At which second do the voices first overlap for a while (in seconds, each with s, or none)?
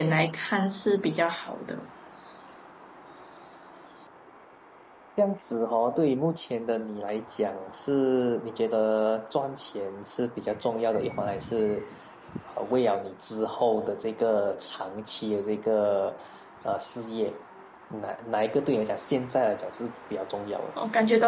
none